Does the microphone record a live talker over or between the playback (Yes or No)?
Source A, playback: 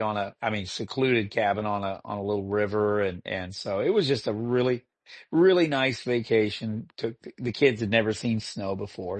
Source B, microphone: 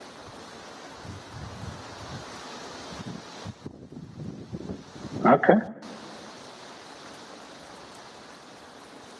Yes